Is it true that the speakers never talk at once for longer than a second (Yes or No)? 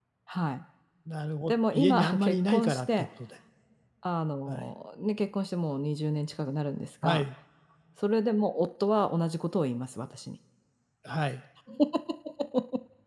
No